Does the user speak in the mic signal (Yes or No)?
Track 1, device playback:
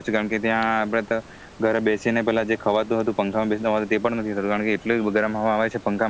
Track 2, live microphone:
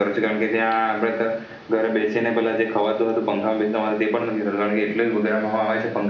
No